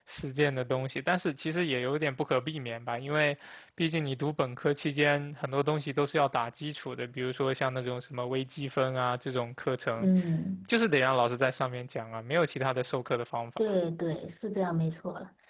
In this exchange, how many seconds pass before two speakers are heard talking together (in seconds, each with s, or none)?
none